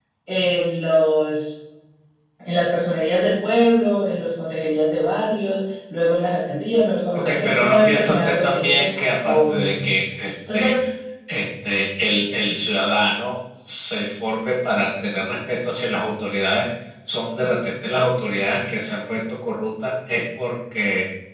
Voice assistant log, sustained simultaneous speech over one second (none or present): present